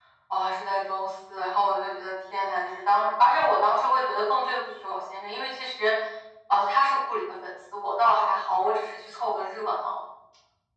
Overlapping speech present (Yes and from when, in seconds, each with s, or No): No